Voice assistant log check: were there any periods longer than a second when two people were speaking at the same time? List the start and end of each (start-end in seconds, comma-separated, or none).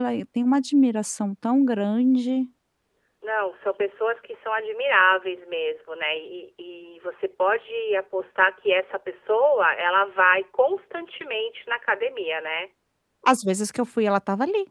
none